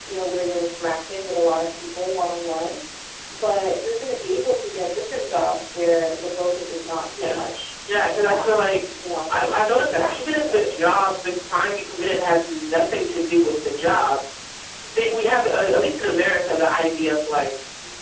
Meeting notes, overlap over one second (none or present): present